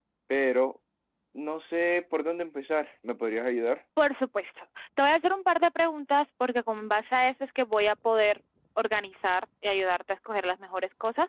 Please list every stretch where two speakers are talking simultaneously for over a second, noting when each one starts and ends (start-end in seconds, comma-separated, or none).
none